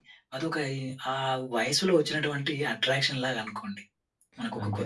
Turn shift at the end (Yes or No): No